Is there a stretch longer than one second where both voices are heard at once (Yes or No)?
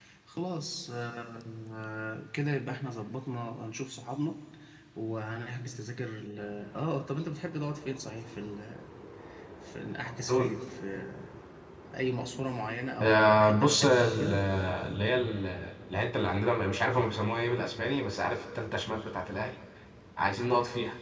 Yes